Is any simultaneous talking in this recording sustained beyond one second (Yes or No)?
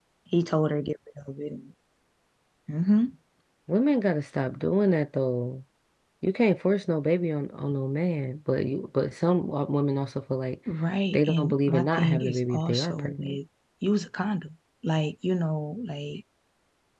Yes